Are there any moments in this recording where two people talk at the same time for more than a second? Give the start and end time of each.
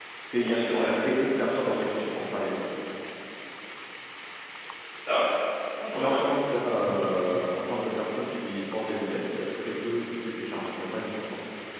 none

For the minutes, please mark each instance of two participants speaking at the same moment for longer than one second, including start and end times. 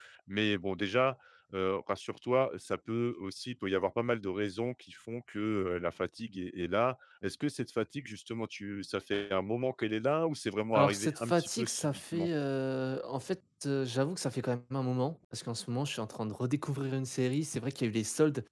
10.8-12.3

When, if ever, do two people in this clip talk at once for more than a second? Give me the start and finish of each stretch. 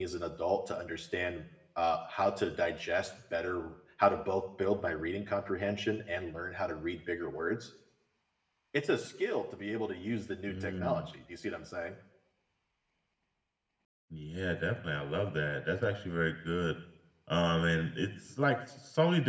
none

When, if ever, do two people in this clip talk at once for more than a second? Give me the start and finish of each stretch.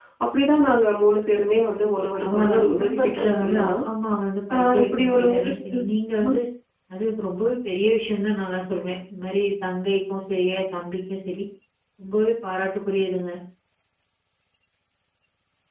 2.1-3.7, 4.5-5.8

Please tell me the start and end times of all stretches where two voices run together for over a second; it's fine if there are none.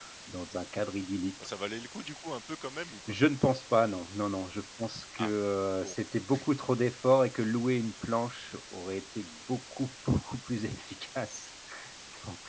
none

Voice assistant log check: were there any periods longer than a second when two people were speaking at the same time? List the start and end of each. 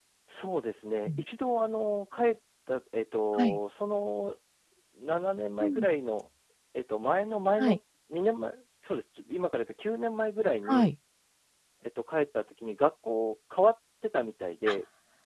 none

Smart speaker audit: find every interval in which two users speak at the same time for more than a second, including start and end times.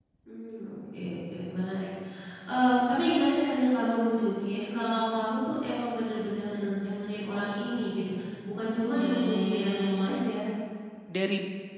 8.9-10.2

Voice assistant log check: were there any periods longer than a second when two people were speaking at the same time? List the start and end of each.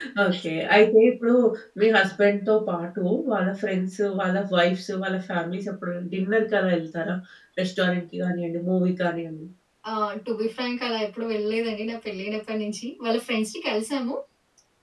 none

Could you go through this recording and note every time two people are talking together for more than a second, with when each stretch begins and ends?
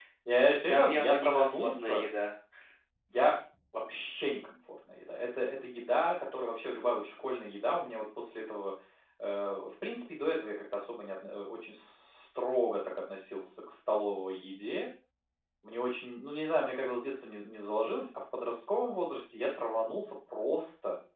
0.7-2.0

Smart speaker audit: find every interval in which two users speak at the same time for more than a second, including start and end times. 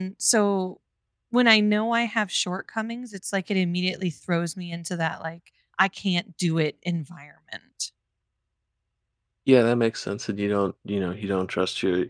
none

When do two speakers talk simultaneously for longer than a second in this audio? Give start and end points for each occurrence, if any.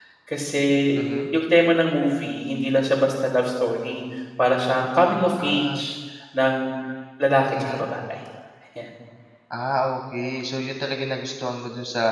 none

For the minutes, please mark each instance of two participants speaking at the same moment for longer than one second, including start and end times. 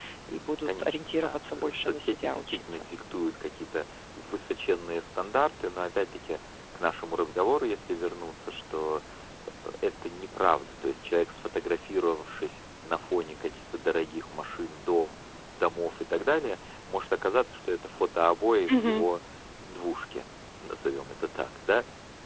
0.7-2.9

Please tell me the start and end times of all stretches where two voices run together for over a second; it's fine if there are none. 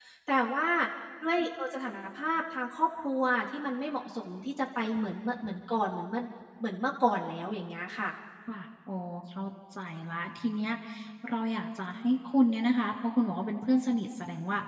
none

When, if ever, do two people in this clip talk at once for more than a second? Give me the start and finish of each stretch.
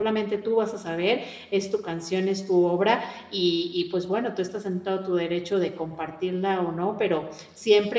none

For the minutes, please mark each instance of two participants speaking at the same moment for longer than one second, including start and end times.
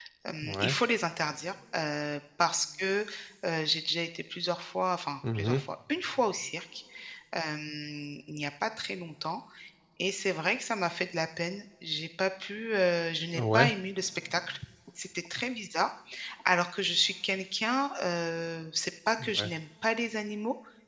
none

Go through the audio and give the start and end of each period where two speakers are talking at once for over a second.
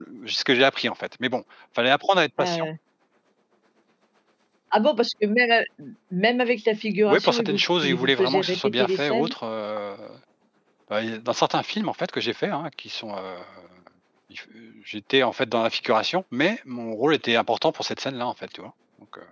7.1-9.3

